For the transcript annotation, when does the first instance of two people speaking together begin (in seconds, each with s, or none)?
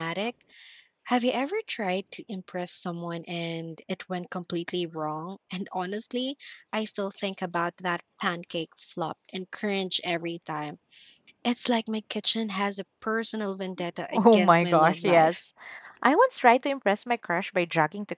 14.1 s